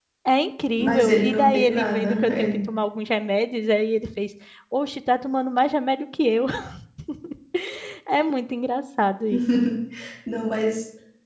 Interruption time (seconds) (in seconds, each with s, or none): 0.8 s